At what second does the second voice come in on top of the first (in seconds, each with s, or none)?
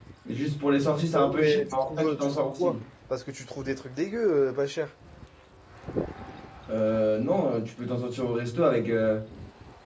1.1 s